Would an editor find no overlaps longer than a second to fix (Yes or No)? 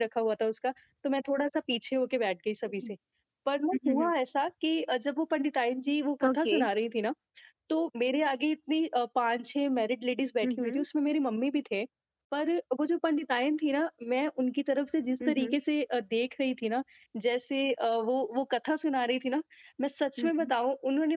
Yes